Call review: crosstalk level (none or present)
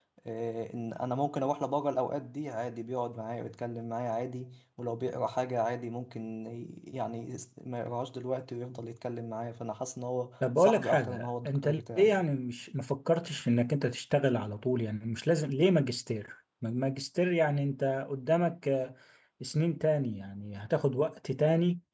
present